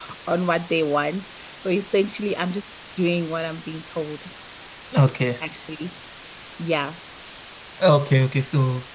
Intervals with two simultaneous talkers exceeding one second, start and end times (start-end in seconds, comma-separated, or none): none